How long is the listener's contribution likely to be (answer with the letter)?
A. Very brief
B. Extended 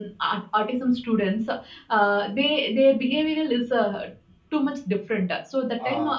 A